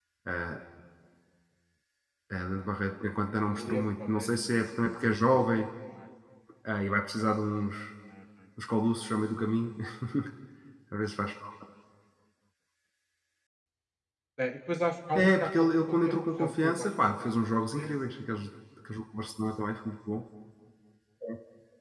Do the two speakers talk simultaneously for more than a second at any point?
Yes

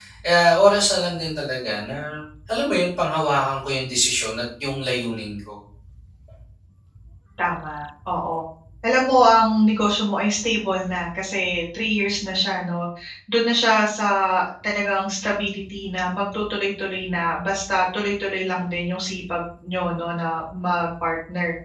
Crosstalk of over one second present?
No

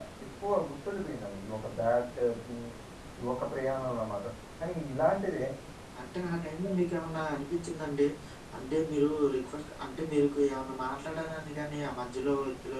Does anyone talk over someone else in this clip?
No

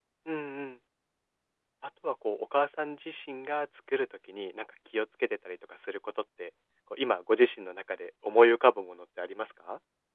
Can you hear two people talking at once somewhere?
No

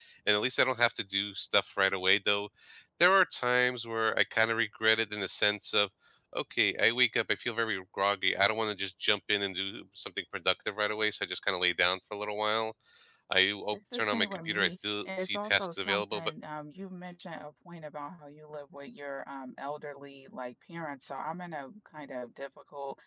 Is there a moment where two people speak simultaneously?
Yes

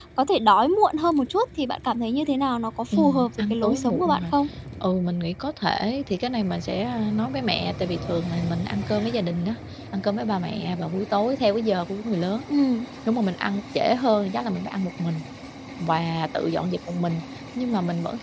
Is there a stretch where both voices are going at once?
Yes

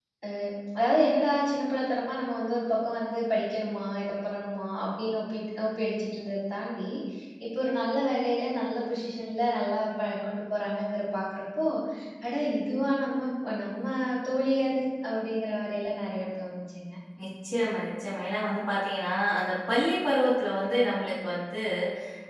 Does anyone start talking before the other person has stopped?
No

